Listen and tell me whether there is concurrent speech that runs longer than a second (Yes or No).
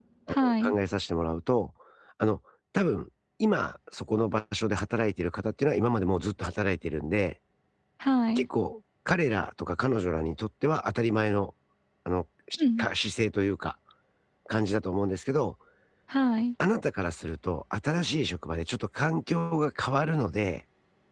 No